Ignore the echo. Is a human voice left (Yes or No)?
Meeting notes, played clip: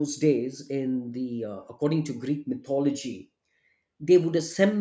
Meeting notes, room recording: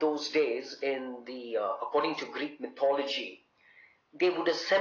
No